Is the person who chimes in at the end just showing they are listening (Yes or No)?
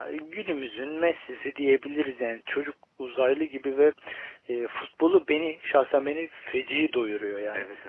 No